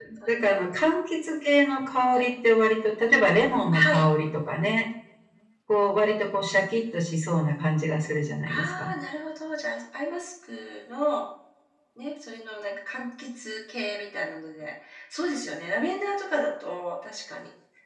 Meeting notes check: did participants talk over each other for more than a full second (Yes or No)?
No